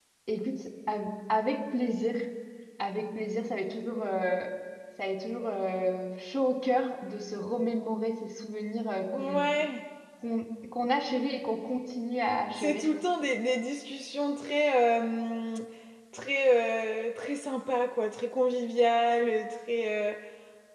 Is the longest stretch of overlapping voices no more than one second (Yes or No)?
Yes